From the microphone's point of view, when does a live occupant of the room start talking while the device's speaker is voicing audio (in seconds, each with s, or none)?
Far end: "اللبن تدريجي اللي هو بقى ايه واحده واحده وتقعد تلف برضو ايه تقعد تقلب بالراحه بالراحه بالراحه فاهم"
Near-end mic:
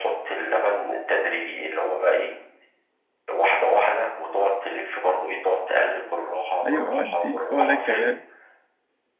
6.7 s